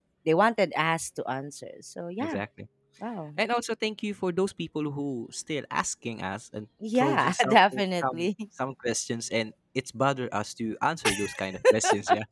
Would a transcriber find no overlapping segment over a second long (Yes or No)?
No